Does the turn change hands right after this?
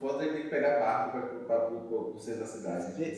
Yes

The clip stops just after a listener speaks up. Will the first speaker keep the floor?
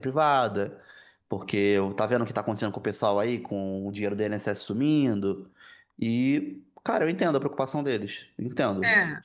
No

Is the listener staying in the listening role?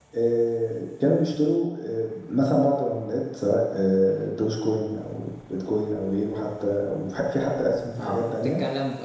No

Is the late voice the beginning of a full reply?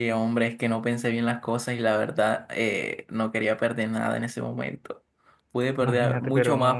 Yes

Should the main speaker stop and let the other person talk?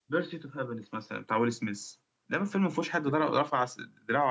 No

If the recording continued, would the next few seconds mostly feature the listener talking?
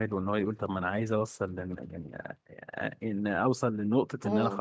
No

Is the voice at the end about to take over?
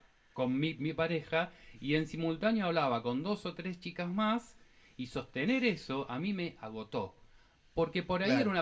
No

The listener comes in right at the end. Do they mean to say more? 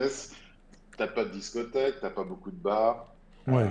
No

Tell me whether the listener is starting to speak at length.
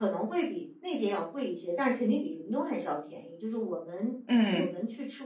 No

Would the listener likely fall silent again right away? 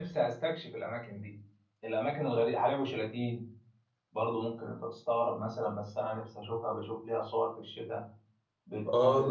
No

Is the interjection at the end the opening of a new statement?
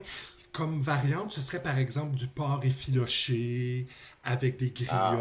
No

